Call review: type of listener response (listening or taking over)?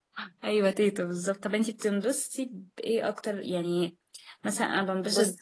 listening